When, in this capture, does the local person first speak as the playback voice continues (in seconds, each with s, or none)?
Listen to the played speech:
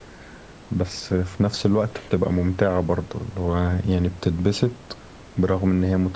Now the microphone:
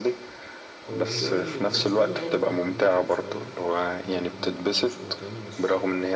0.9 s